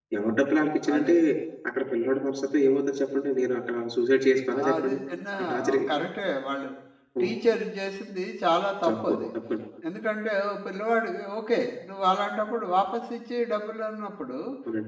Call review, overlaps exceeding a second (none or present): none